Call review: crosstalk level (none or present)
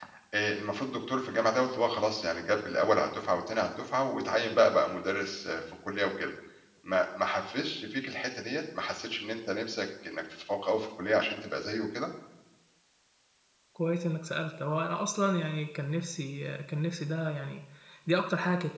none